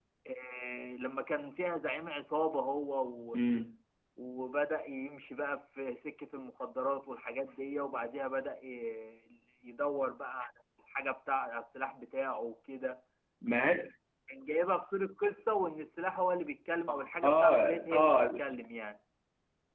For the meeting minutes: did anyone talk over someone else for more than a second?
Yes, from 16.9 s

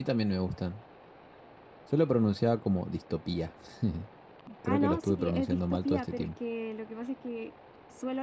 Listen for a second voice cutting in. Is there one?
Yes, from 4.7 s

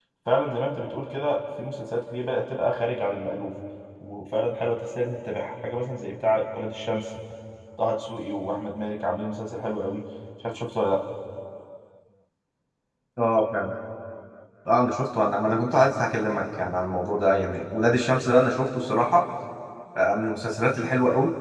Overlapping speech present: No

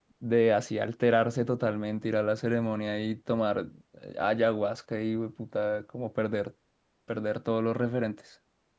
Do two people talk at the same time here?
No

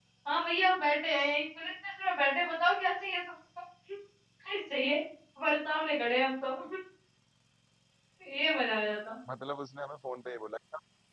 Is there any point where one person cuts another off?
No

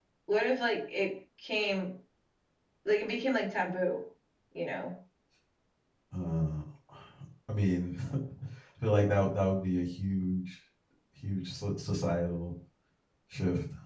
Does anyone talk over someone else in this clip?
No

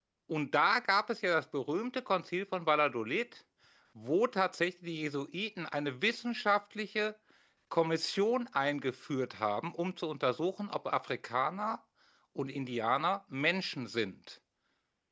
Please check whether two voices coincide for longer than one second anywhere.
No

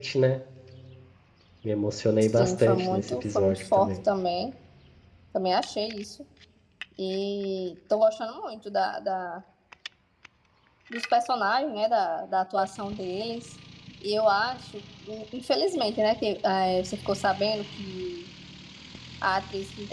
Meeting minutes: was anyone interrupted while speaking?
Yes, from 2.2 s

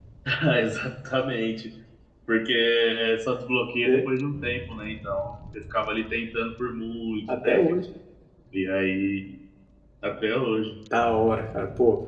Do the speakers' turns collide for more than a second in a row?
No

